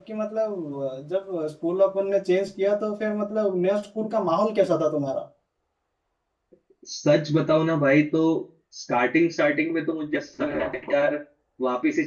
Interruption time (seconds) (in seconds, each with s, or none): none